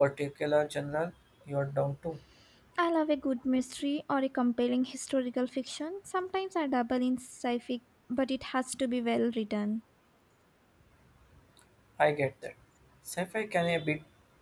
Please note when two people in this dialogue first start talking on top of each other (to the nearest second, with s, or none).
none